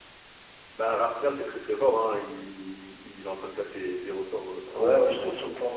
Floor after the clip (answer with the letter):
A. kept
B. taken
B